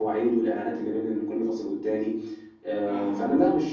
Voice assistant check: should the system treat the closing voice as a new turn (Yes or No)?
No